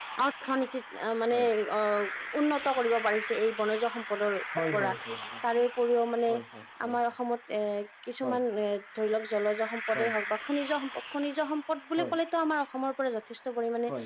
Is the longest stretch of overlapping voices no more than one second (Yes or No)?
Yes